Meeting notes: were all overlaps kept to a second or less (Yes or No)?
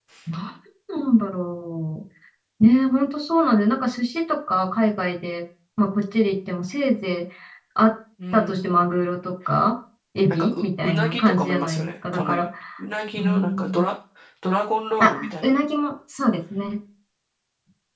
No